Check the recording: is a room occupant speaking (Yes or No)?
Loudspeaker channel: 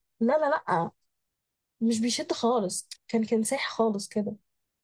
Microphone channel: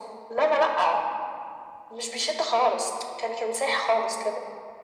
No